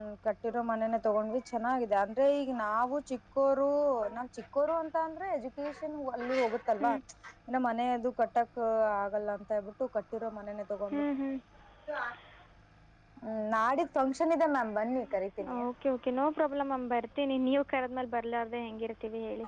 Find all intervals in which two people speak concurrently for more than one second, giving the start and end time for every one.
none

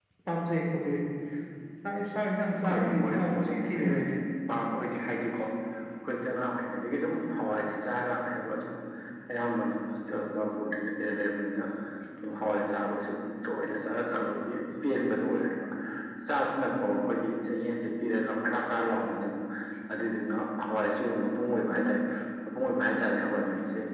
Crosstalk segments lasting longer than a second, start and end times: 2.6-3.9

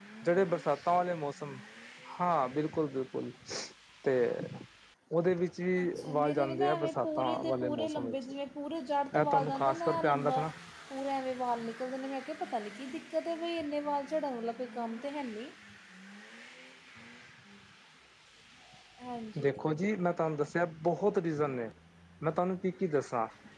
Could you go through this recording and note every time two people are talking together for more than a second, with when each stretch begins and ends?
5.8-8.2, 9.2-10.4

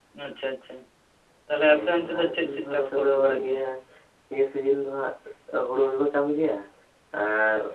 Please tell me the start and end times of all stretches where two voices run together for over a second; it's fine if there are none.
1.7-3.6

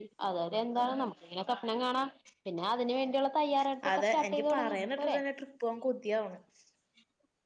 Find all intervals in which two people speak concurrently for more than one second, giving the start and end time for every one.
3.9-5.2

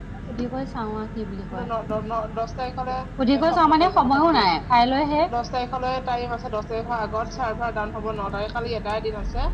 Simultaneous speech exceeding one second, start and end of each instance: 3.4-4.6

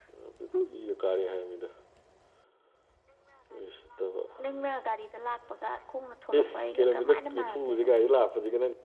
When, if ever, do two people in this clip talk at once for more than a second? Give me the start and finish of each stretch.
6.4-7.9

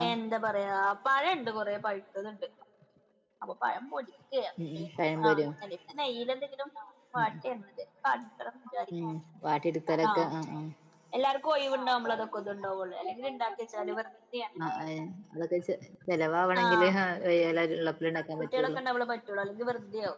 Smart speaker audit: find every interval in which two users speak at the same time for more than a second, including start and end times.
none

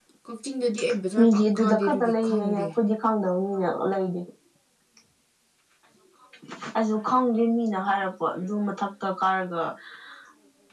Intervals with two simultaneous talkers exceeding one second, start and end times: 1.2-2.7

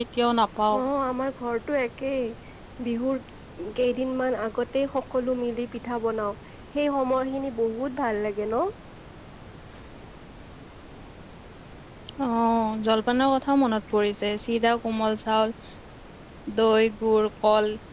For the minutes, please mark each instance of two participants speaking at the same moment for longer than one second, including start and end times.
none

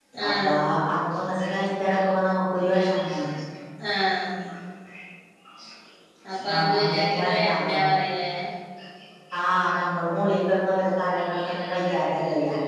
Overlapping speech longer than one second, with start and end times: 6.4-7.8

